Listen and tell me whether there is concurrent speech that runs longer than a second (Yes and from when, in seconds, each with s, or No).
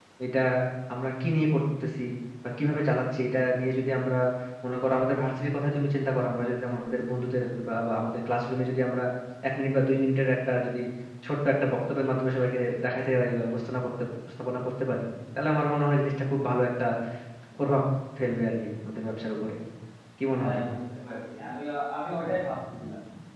No